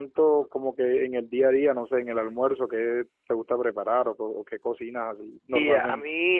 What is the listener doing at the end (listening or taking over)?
taking over